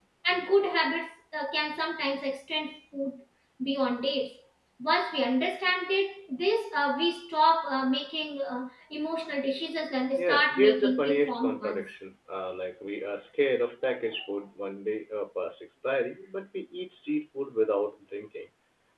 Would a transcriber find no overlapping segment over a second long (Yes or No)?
No